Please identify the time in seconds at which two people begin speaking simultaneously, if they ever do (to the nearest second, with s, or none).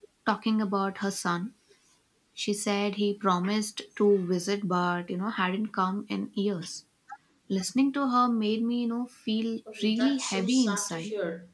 10 s